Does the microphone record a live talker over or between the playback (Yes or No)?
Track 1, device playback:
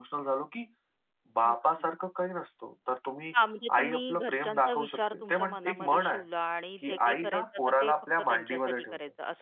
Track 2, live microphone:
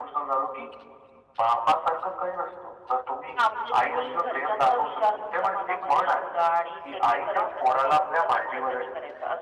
No